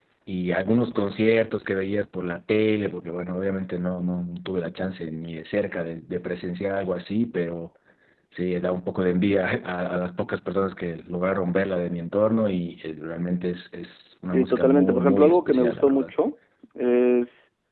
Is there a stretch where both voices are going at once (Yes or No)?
Yes